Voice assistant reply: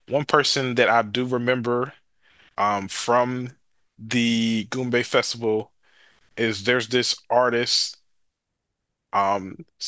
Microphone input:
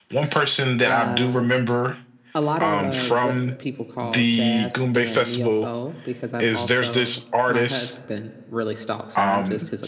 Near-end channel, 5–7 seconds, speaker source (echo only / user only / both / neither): both